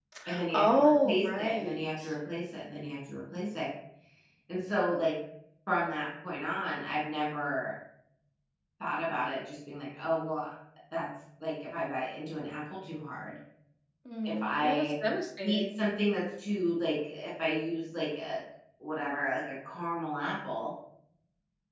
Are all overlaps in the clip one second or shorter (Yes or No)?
No